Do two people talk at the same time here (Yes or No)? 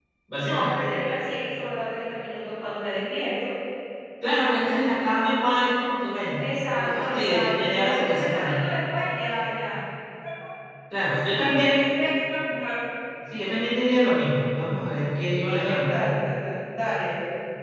Yes